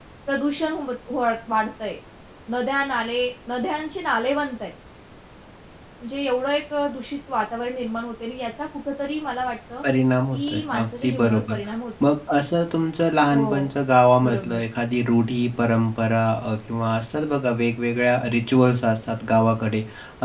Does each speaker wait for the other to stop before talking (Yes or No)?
No